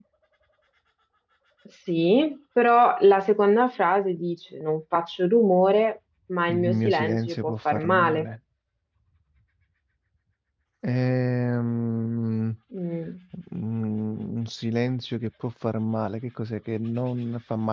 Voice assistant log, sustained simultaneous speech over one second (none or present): present